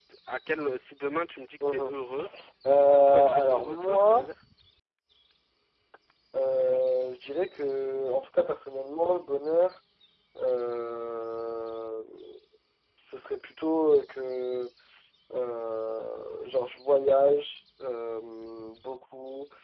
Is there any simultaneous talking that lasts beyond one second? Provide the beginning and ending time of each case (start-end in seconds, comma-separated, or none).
3.0-4.3